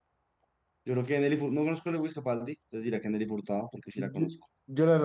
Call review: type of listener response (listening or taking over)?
taking over